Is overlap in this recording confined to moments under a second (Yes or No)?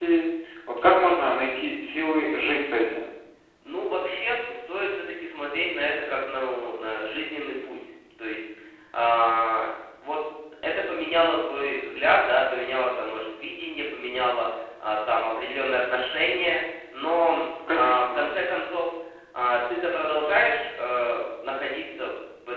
Yes